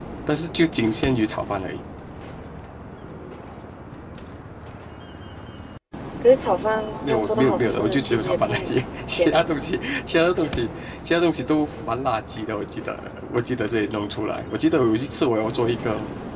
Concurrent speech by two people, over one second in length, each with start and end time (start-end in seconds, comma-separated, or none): 7.0-8.7